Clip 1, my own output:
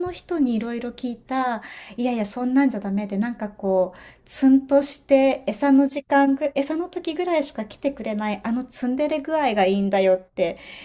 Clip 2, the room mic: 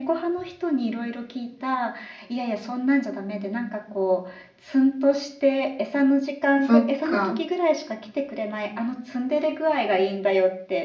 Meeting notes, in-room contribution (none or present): present